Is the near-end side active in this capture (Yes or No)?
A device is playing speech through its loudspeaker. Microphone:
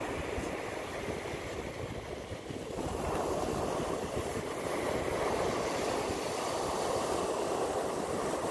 No